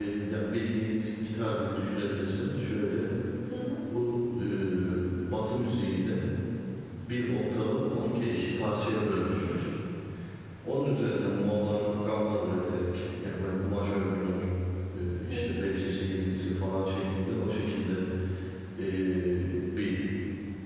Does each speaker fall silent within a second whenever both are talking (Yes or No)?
Yes